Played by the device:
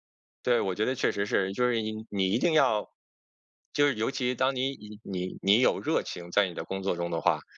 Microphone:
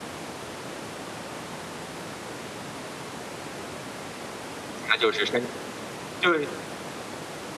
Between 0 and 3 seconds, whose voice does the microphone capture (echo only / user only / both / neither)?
neither